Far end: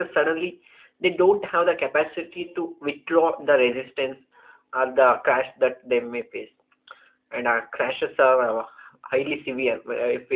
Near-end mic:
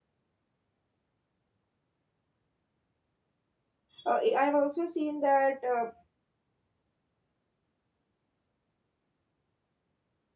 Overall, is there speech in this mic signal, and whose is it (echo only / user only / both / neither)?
user only